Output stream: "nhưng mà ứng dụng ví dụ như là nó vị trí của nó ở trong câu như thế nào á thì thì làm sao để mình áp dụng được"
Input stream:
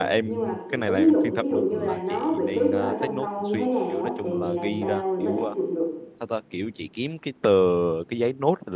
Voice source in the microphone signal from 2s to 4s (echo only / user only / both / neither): both